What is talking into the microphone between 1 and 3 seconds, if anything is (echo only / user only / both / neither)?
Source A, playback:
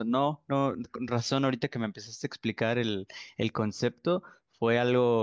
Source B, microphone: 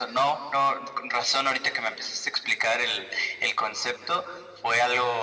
echo only